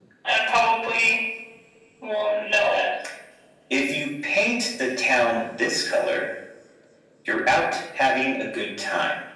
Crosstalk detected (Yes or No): No